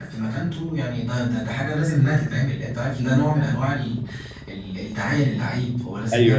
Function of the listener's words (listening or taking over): listening